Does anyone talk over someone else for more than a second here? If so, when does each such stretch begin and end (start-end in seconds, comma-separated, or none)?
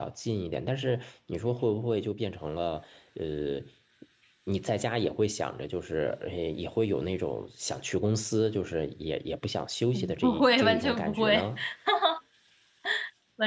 9.9-11.3